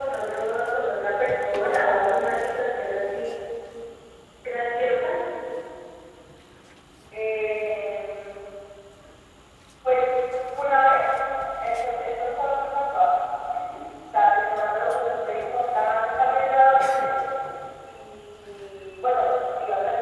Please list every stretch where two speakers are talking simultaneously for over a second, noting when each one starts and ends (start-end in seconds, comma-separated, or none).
none